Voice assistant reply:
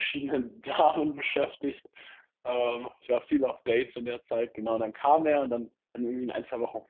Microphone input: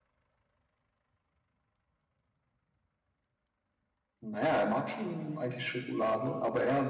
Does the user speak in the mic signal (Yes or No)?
Yes